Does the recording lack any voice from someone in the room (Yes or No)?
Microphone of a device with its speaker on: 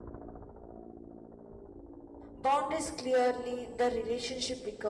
No